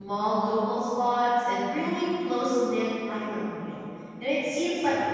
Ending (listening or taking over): listening